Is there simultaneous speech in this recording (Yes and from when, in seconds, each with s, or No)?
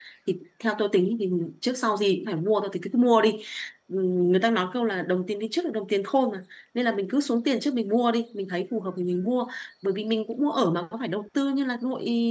No